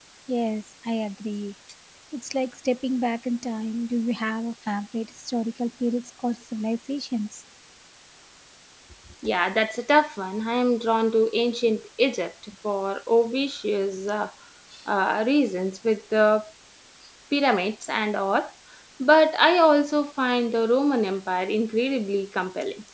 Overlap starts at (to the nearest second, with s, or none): none